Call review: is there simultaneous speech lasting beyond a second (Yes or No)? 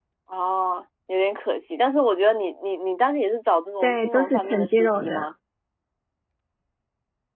Yes